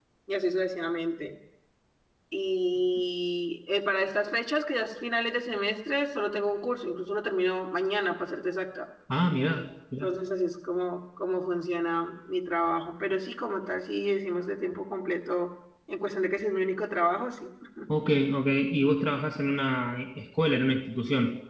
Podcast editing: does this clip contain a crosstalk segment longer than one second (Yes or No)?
No